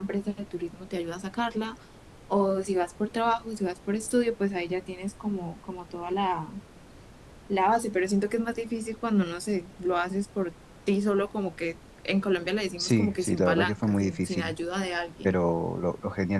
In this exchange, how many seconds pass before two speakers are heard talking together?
12.8 s

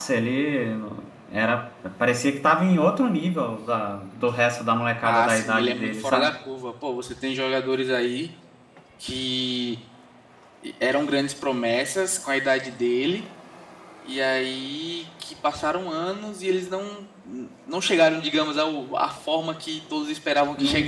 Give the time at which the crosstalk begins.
5.0 s

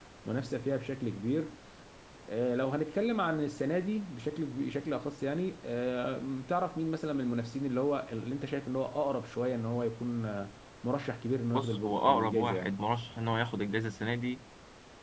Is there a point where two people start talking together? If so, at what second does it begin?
11.5 s

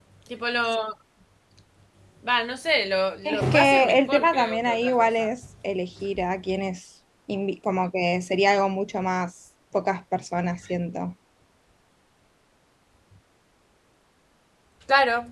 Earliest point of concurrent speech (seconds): 3.2 s

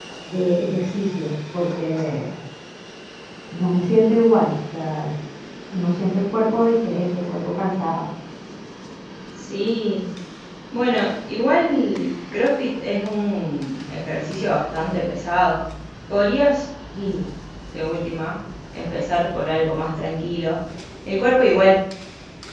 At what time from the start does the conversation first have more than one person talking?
none

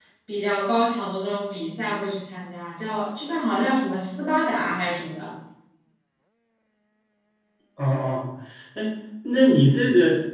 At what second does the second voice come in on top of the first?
none

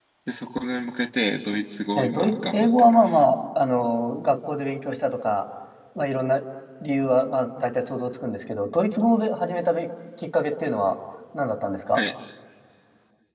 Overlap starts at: 1.9 s

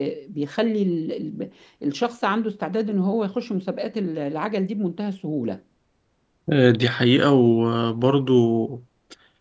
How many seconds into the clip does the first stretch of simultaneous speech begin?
none

